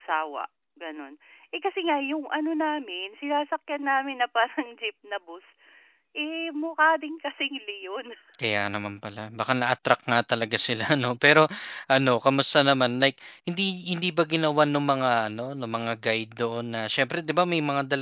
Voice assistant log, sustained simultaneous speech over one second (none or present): none